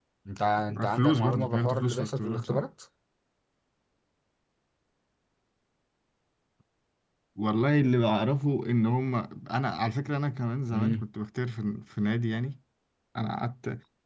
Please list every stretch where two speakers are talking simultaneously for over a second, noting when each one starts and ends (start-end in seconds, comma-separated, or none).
0.9-2.6